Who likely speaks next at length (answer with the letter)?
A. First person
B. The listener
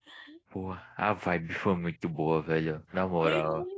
B